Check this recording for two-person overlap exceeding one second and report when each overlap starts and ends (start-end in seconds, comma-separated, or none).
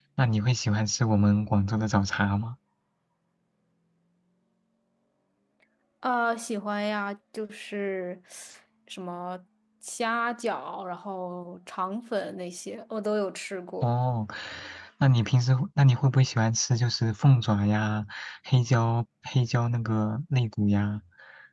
none